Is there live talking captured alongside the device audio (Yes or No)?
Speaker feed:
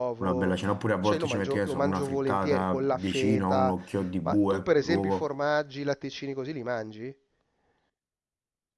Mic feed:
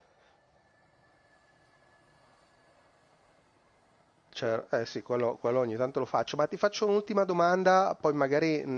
Yes